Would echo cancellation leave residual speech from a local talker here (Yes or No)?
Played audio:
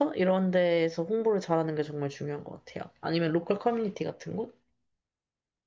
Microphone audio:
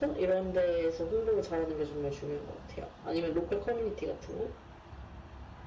No